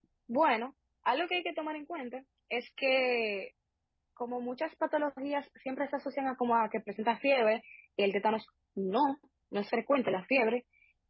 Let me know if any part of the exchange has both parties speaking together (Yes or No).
No